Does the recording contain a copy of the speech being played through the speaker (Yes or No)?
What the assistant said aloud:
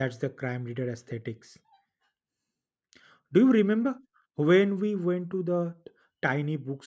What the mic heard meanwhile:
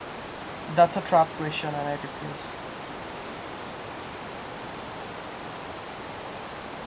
No